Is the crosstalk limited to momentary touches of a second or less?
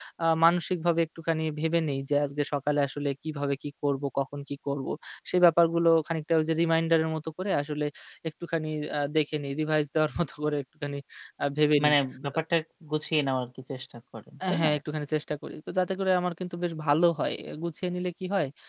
Yes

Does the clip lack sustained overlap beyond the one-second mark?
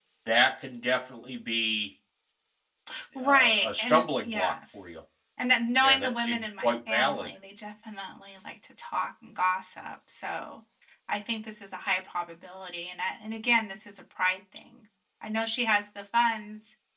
No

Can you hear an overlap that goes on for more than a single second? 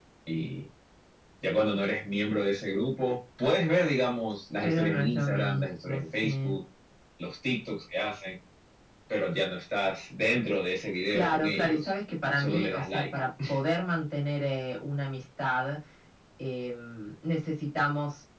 Yes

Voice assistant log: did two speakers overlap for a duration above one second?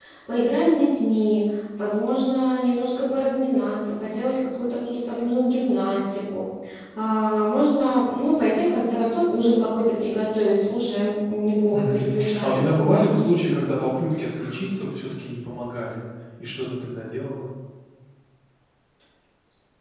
Yes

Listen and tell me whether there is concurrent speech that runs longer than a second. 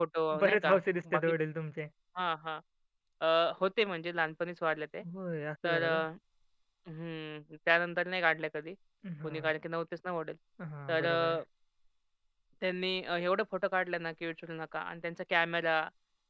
No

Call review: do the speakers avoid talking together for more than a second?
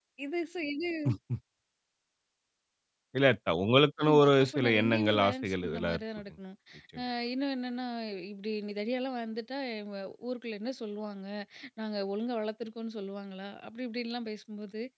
No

